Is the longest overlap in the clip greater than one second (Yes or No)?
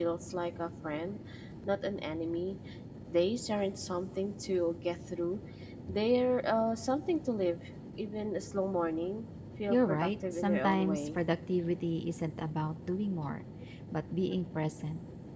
Yes